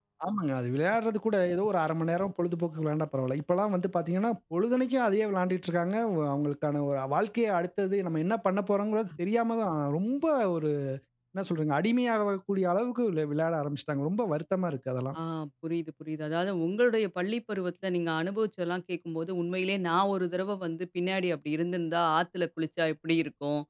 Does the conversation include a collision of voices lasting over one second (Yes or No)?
No